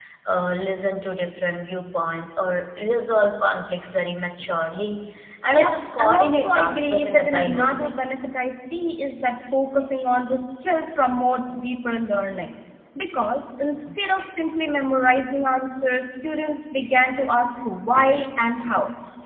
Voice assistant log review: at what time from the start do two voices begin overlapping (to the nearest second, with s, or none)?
6 s